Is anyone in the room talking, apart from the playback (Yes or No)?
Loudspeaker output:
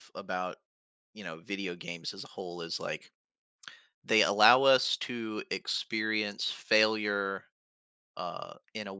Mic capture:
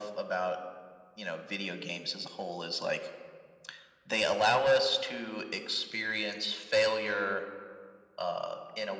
No